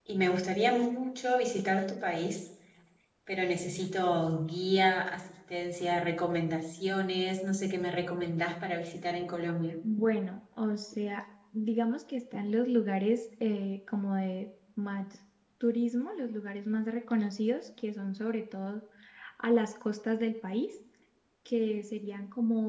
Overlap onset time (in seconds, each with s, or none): none